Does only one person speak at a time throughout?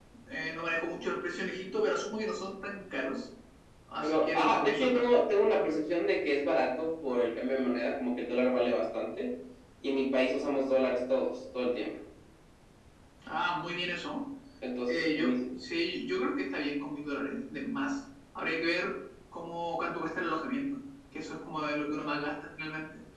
No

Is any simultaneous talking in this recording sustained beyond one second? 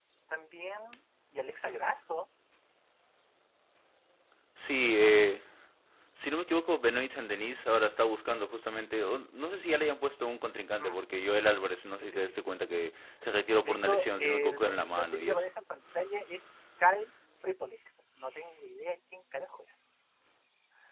Yes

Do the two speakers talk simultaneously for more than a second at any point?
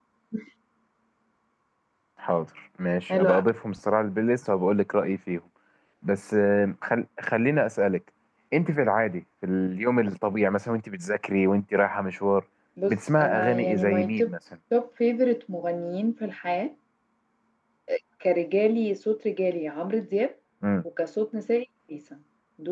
Yes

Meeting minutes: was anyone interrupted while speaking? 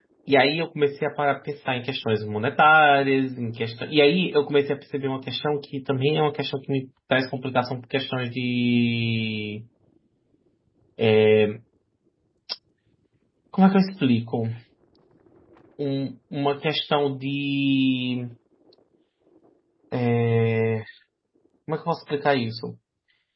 No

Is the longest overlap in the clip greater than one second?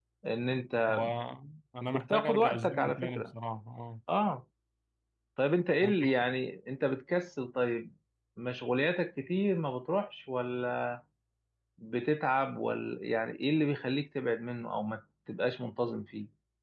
Yes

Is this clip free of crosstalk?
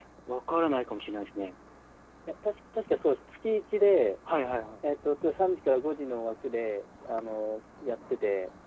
Yes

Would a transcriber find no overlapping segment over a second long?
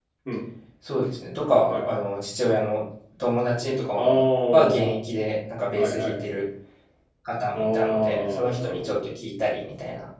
No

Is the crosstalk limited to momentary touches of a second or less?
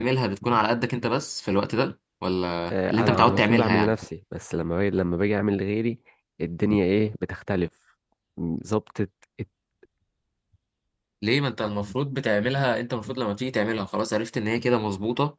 No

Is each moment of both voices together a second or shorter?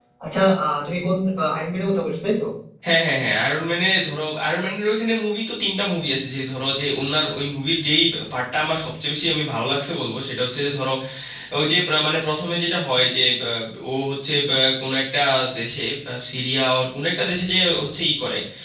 Yes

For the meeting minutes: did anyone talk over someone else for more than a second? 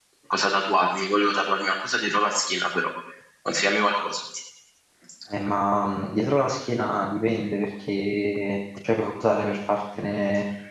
No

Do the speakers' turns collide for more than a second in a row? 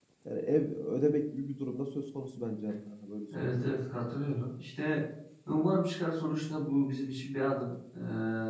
No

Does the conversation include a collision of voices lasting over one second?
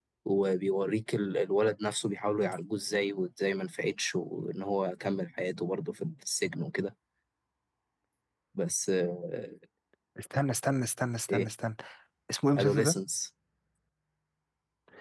No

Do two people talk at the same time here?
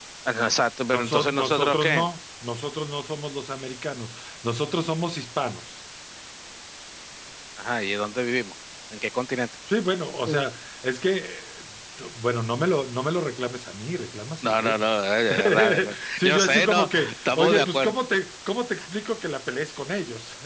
Yes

